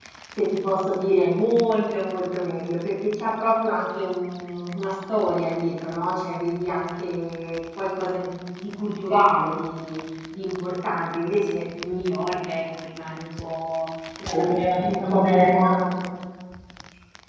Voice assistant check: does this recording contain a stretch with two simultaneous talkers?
Yes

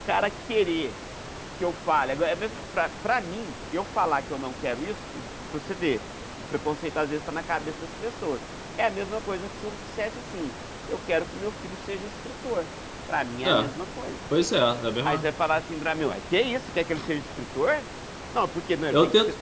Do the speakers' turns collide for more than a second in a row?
No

